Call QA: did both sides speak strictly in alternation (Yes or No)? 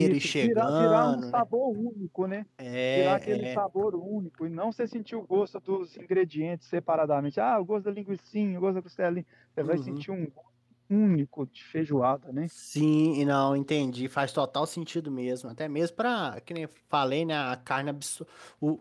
No